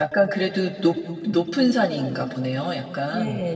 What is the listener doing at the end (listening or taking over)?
taking over